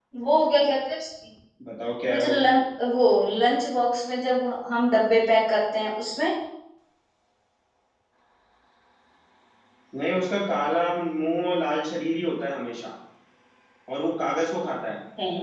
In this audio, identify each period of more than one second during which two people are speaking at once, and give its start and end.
none

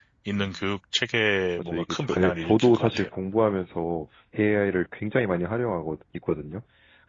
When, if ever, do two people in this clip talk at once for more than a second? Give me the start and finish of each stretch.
1.6-3.0

